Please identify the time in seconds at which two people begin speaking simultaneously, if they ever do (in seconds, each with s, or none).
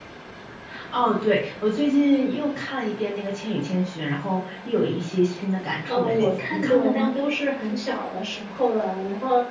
5.9 s